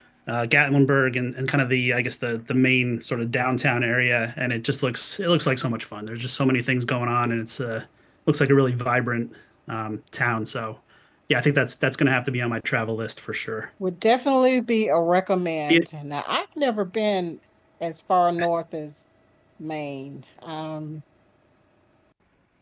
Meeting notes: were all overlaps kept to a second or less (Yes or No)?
Yes